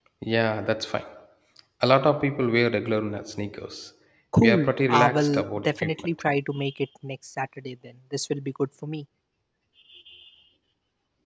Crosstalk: present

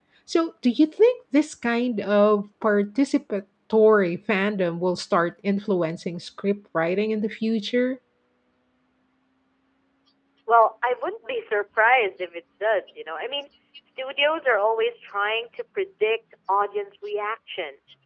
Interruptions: none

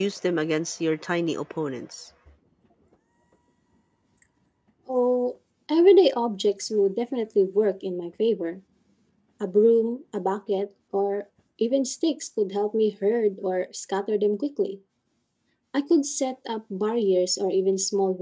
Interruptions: none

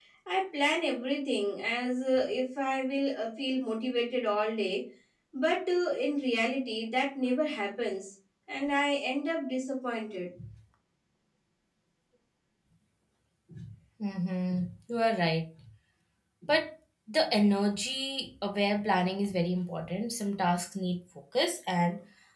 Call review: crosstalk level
none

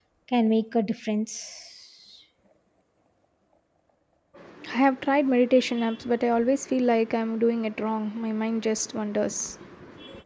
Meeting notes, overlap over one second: none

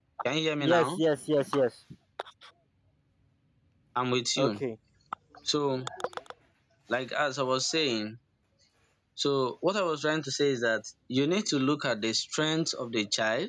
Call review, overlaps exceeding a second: none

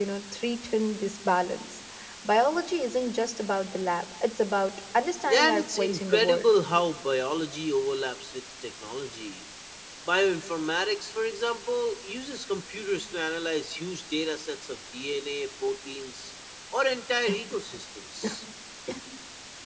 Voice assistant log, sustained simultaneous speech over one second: present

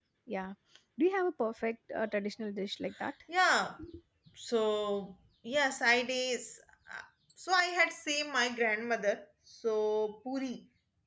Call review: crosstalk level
none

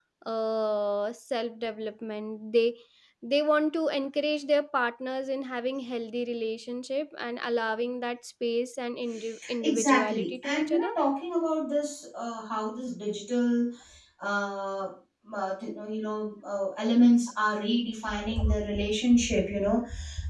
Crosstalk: present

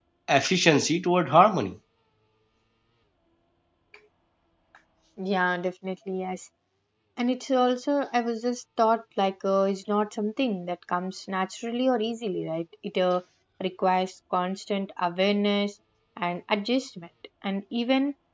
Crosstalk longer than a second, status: none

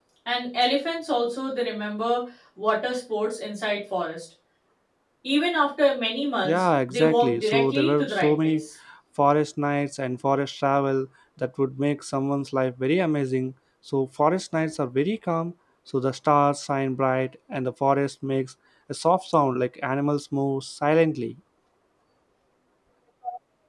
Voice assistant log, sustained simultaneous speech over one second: present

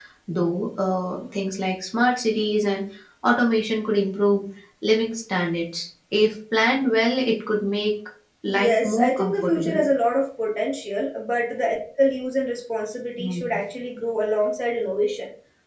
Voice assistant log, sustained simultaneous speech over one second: present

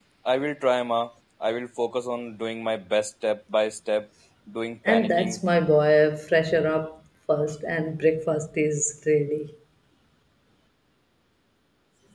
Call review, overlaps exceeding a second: none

